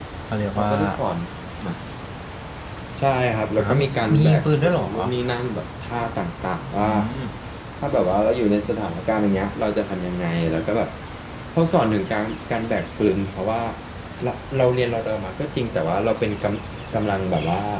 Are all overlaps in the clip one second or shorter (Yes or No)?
No